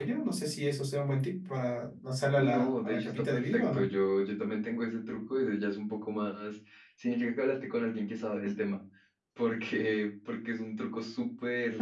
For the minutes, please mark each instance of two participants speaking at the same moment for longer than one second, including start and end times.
2.4-3.9

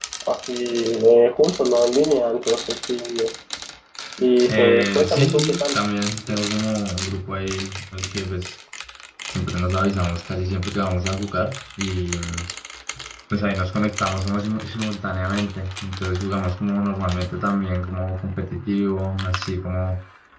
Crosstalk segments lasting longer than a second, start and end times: 4.5-5.8

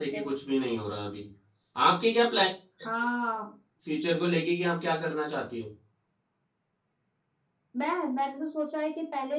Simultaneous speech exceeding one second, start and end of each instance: none

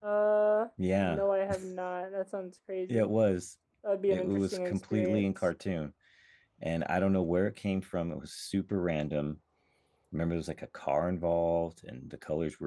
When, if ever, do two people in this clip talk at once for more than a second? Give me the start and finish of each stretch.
4.1-5.3

